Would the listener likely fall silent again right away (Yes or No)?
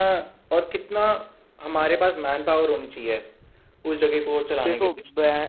No